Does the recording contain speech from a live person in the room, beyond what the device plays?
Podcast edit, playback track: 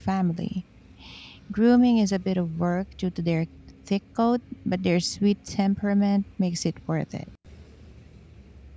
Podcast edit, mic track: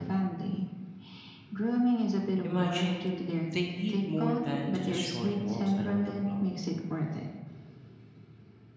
Yes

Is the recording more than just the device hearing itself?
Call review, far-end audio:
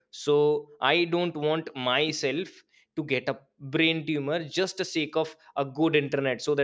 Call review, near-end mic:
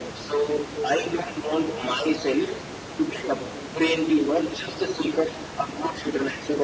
No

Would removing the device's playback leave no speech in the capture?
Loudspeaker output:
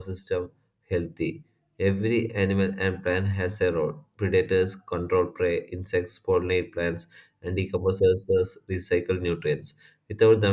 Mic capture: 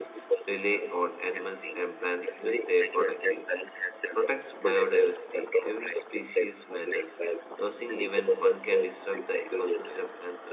No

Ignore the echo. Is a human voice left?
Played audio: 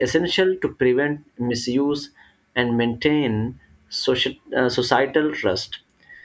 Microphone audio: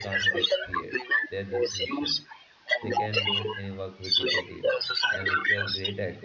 Yes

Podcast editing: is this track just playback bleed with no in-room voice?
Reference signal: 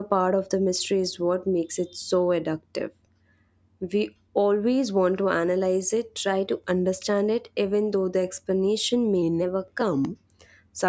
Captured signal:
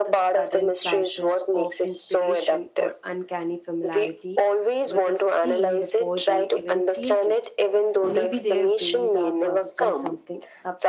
No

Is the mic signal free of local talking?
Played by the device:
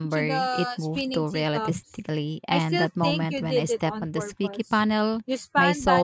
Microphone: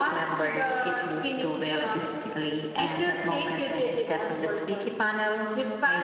Yes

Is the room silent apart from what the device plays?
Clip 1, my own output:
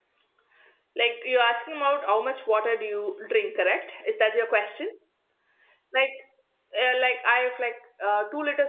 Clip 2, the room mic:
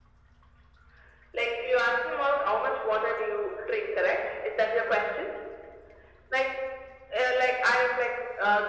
Yes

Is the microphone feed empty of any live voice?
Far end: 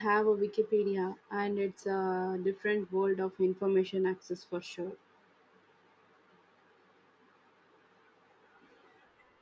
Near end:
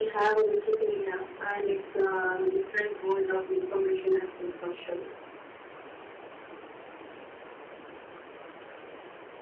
Yes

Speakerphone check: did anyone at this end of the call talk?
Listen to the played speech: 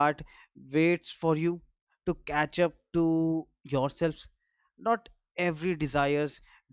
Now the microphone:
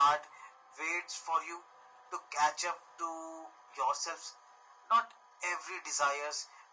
No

